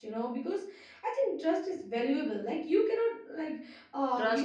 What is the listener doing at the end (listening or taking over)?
listening